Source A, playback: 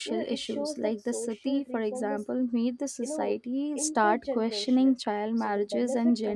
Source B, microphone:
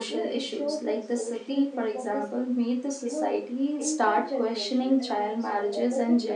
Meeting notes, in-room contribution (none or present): present